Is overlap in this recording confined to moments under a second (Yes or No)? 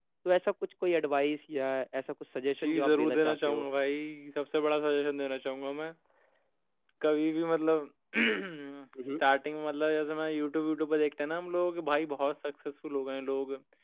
No